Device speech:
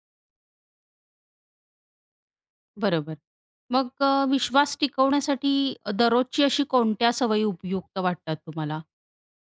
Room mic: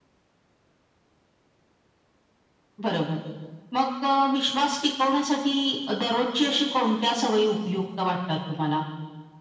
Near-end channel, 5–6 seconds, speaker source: echo only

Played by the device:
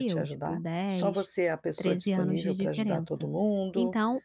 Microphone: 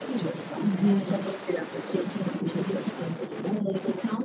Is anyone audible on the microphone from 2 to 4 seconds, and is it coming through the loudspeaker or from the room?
echo only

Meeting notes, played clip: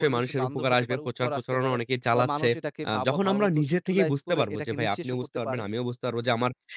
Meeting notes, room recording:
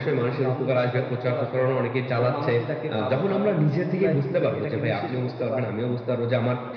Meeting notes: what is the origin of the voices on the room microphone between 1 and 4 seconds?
echo only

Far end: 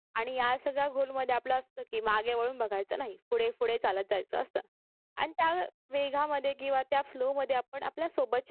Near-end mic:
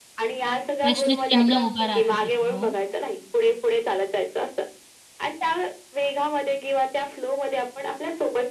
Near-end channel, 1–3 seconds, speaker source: both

